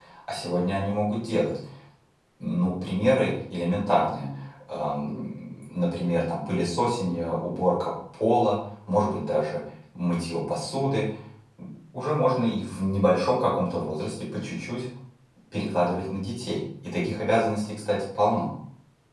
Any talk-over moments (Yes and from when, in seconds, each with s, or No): No